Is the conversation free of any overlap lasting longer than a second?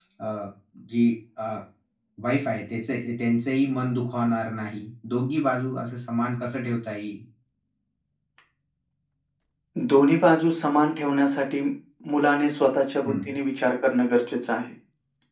Yes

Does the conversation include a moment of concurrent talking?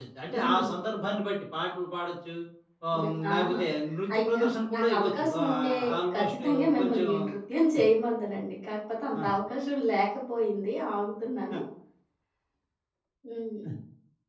Yes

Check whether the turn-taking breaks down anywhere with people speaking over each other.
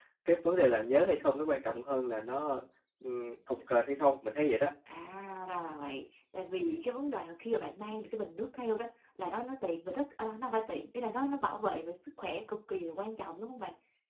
No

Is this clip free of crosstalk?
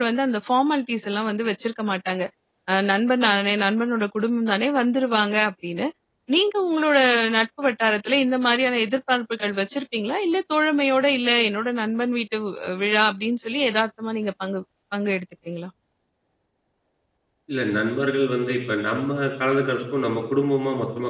Yes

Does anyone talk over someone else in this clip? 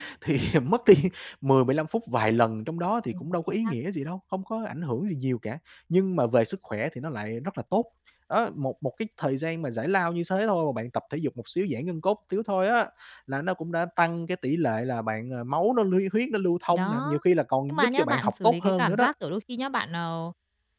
Yes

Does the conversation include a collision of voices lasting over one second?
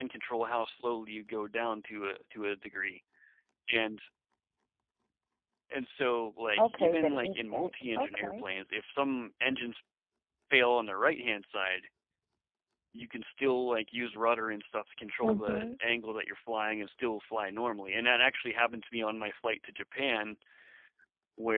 Yes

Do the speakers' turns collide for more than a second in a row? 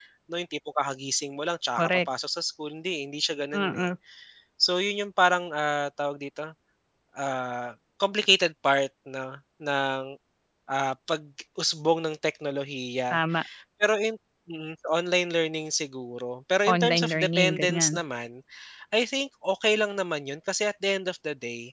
Yes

